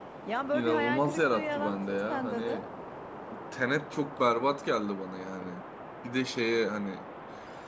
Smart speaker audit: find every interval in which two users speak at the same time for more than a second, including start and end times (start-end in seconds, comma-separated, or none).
0.5-2.6